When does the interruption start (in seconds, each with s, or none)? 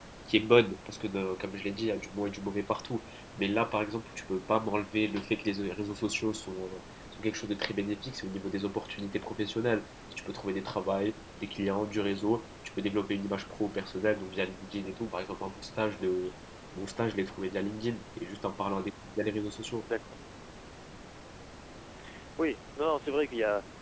none